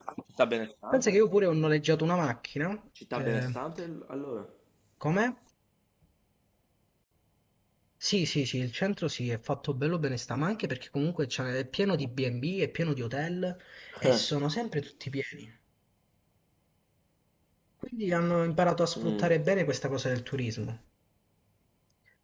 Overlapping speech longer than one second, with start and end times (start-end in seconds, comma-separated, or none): none